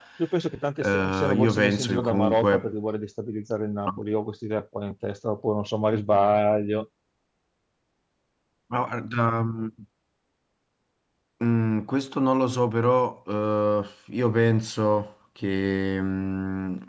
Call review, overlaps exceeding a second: present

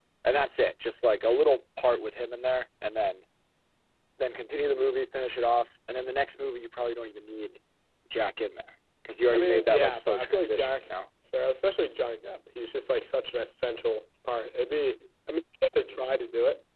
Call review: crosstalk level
present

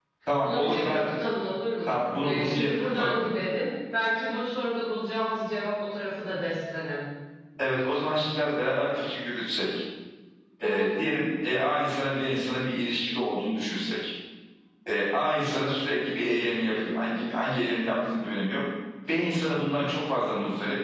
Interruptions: present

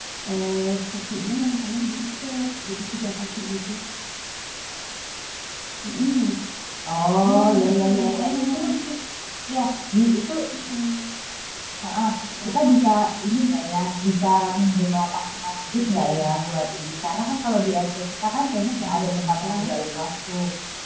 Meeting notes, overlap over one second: present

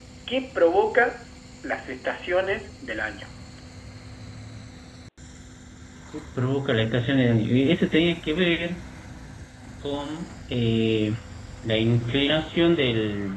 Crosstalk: none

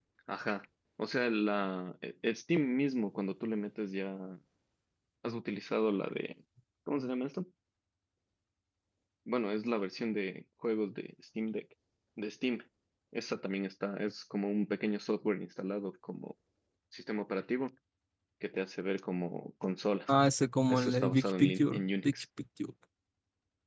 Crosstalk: present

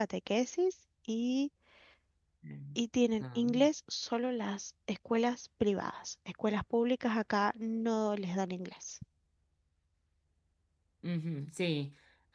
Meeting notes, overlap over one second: none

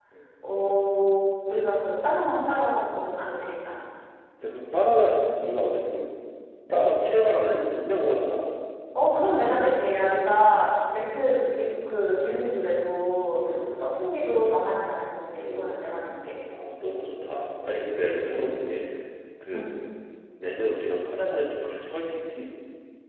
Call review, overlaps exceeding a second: none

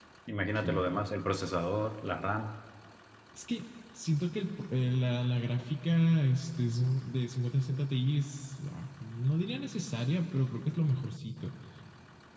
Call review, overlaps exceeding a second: none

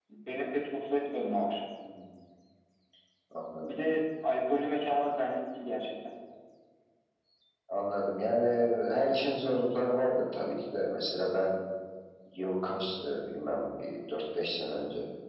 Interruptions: none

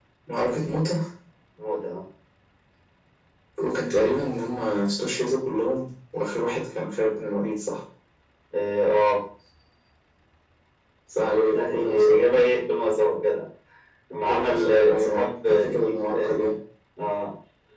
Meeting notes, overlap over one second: present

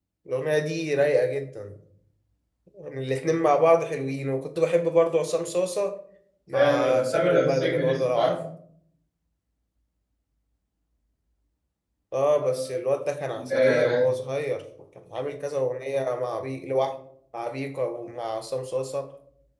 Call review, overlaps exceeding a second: present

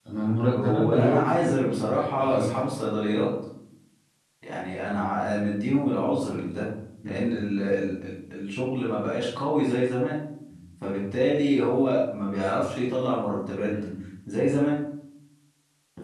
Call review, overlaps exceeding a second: present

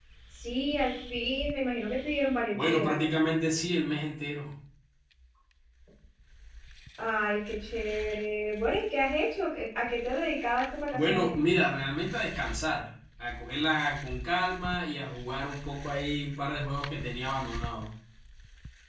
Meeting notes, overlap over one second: none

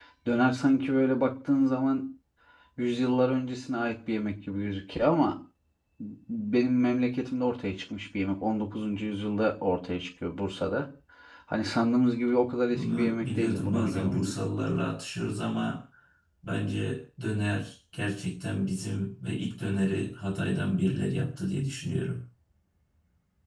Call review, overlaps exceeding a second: present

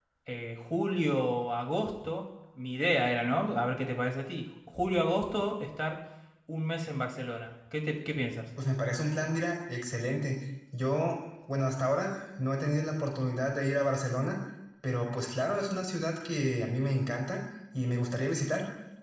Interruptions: none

